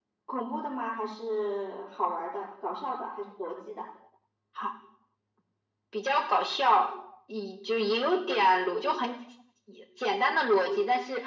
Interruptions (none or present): none